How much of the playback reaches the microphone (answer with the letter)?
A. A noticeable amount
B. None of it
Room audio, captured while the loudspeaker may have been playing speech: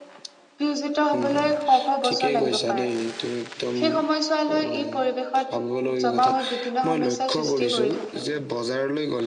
A